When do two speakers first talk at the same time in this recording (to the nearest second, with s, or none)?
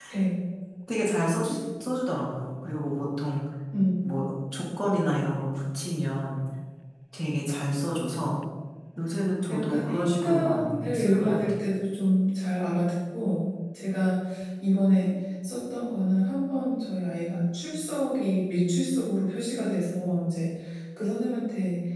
9 s